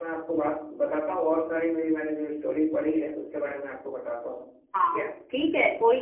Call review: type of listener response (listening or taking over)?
taking over